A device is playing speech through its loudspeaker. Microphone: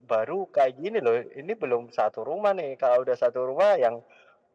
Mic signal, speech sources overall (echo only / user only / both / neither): echo only